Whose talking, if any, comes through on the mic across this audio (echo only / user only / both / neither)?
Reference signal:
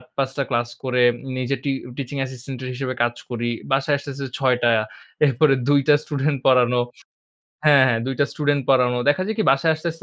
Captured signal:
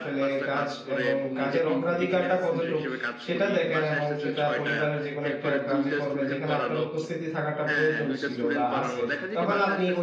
both